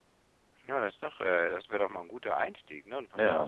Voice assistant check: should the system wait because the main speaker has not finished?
Yes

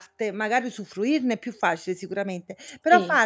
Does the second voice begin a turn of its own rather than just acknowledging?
No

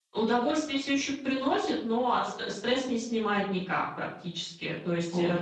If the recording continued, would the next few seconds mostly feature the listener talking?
No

